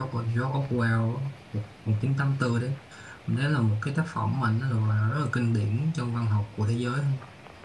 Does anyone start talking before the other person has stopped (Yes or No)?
No